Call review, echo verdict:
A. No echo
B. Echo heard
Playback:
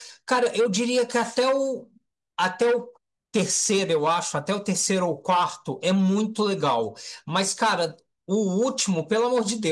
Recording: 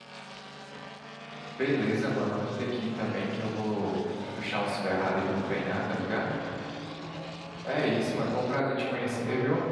A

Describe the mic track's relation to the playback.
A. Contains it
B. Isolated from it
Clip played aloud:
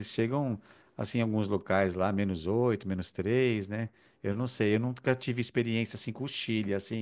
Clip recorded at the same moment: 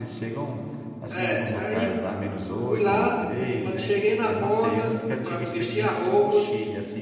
A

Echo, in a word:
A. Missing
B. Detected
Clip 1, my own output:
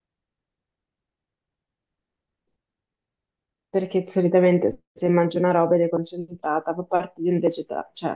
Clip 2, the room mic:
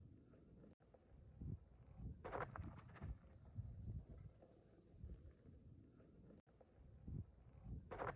A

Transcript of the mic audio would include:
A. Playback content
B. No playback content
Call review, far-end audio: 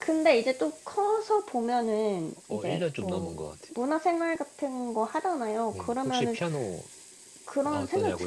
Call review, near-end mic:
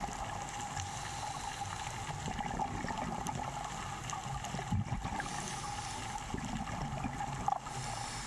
B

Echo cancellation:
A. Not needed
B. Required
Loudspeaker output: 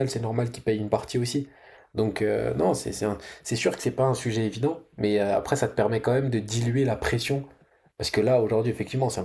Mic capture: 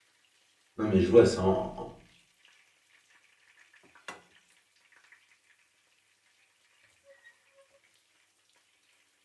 A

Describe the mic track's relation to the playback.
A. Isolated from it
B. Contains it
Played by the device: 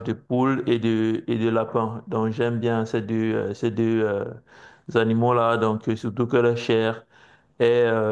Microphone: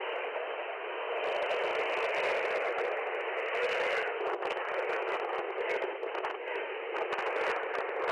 A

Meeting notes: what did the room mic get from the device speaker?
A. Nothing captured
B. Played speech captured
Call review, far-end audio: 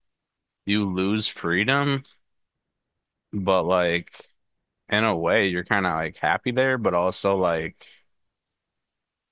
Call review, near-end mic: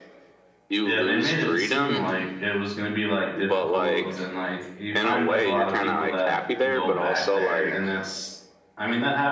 B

